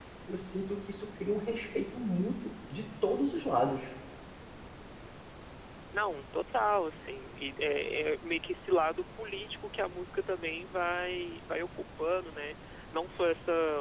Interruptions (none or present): none